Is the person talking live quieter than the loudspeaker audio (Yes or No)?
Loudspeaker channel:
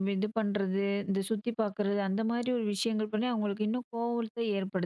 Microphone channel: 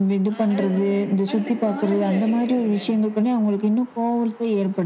Yes